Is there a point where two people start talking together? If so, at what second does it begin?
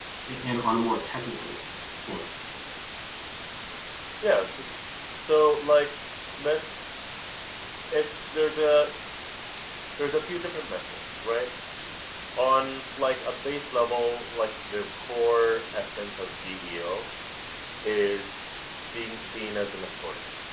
none

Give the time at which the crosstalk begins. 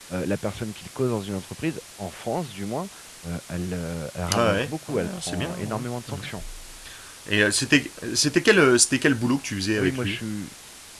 4 s

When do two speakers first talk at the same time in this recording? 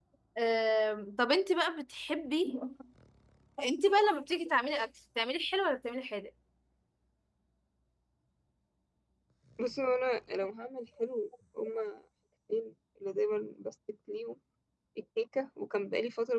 none

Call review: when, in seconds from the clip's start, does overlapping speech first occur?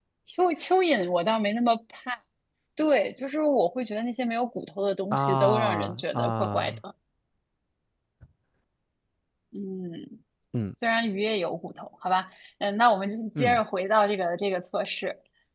5 s

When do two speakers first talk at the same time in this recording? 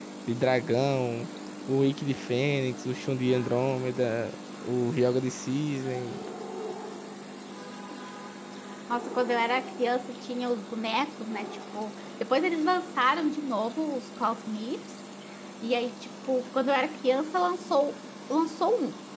none

